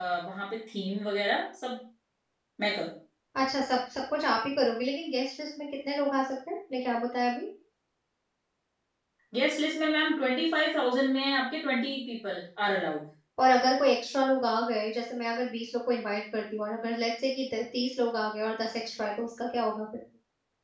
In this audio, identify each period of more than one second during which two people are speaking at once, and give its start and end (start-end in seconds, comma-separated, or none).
none